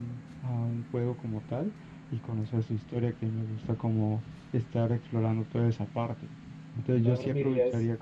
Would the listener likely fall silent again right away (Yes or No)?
No